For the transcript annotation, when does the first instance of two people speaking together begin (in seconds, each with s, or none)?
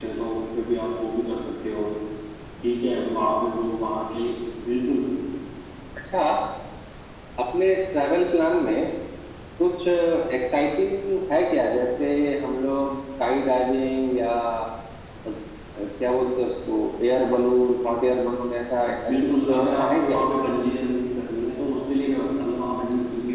18.9 s